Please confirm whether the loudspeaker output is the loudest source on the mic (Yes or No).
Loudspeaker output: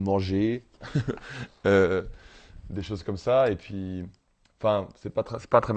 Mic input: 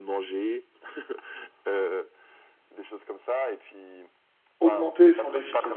No